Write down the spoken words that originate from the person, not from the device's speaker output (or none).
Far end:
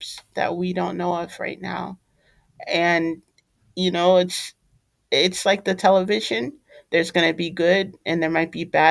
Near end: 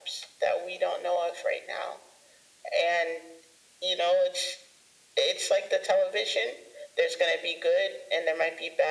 none